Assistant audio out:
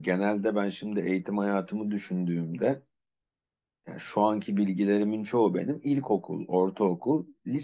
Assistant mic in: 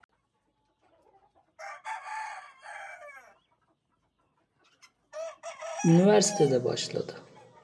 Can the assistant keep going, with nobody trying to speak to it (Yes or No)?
No